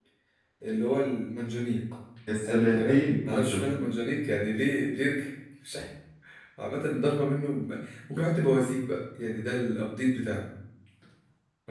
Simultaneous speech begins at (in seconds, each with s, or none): 2.4 s